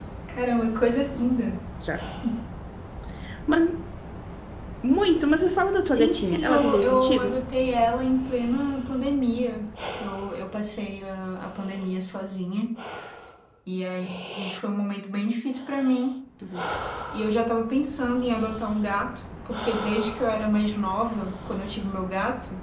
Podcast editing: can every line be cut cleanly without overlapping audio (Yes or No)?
No